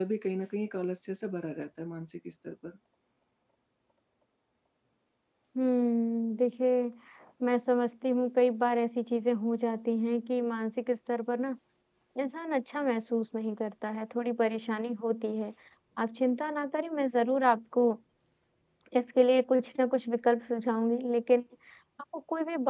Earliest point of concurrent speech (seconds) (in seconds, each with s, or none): none